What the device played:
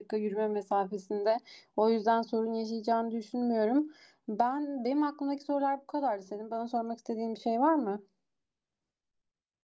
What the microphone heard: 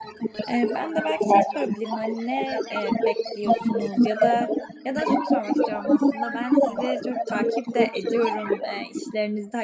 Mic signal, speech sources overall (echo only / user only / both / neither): both